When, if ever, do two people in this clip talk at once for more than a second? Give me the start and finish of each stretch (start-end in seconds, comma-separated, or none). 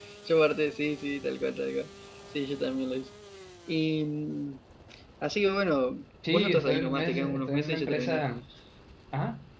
6.3-8.2